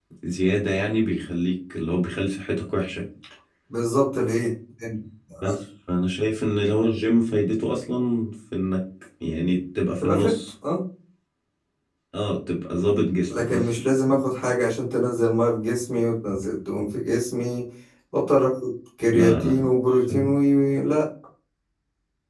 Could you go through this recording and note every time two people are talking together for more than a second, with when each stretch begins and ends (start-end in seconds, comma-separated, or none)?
none